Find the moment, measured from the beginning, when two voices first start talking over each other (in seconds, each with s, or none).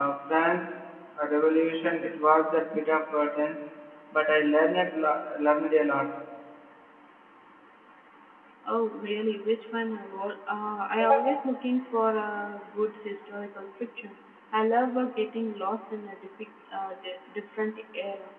none